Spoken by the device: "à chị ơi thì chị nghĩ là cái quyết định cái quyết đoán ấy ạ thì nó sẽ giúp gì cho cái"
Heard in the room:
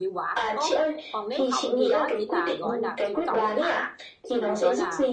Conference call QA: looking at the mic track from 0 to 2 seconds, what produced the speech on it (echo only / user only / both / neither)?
both